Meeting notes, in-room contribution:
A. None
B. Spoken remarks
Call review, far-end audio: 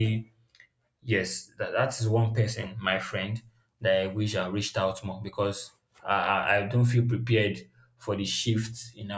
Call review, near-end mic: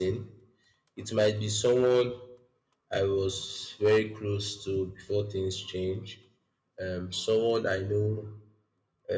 B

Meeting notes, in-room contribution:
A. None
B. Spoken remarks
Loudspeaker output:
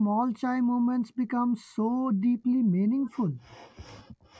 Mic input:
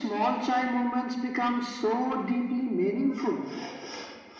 A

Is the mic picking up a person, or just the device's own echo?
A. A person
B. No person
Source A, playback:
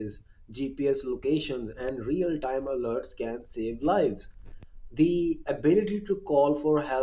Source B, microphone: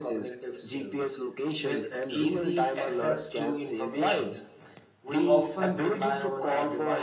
A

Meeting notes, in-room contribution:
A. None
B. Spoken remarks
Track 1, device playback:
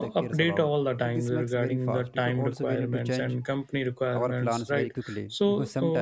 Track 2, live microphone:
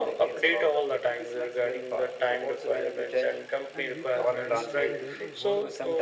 B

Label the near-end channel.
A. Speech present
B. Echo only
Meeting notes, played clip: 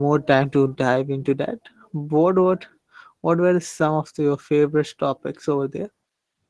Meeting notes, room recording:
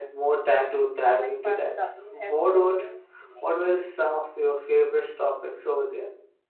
A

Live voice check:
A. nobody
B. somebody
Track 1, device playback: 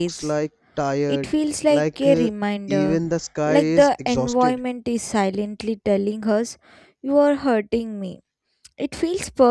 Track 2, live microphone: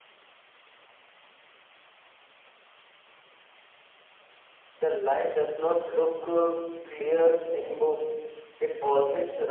B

